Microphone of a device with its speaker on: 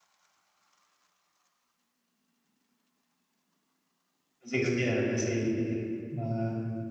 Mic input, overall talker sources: user only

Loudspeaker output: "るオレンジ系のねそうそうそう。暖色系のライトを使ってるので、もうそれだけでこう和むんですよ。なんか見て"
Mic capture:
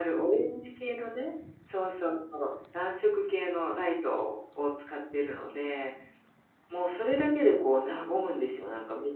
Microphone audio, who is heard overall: echo only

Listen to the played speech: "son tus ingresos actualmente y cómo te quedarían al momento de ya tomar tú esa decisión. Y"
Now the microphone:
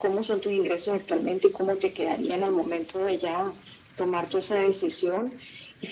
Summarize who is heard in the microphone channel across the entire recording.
echo only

